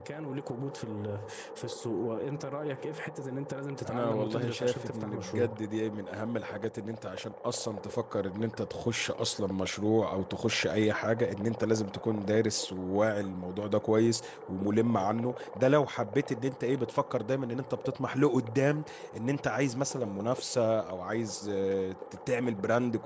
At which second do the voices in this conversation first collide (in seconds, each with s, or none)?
3.9 s